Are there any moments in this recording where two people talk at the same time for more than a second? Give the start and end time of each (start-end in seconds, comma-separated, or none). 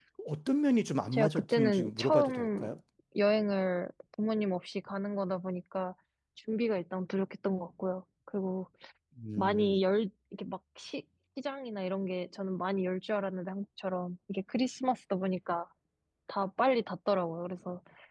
1.1-2.7